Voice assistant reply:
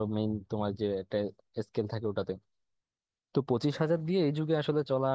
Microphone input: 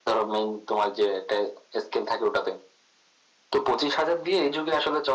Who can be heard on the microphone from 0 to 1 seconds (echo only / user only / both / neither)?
echo only